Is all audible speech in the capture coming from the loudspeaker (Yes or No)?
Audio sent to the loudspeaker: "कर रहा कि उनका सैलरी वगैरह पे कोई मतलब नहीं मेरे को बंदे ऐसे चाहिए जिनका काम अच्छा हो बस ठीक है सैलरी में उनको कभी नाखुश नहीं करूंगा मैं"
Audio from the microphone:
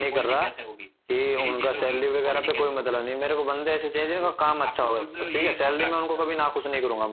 No